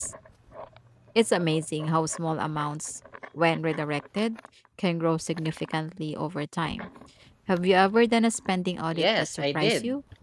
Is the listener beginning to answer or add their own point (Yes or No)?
Yes